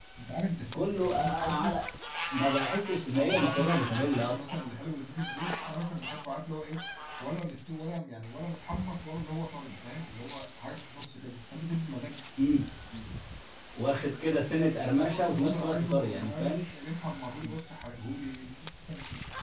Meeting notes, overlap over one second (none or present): present